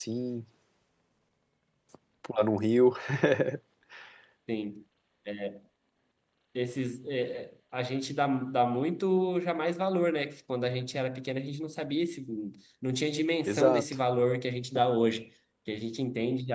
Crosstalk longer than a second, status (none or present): none